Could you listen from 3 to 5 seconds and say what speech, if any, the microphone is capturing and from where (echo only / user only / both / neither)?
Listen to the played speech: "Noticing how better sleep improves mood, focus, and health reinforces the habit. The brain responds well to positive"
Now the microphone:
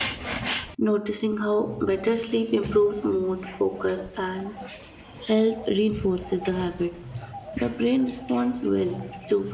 echo only